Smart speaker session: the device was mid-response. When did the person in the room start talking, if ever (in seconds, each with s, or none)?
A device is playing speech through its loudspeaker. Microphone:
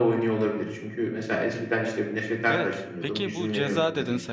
2.5 s